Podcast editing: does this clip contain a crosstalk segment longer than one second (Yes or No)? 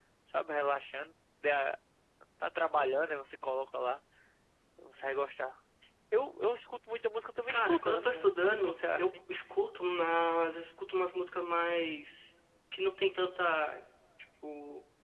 Yes